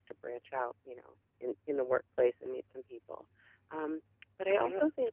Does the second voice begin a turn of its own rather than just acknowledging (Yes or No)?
No